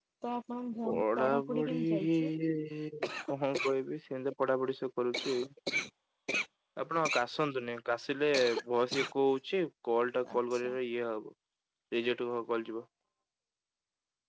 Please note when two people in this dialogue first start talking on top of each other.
0.9 s

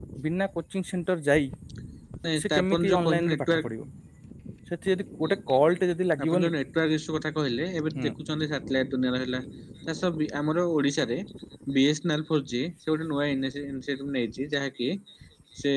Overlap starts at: 2.4 s

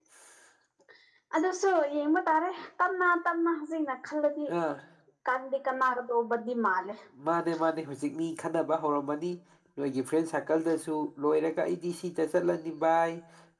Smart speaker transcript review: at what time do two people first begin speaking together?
none

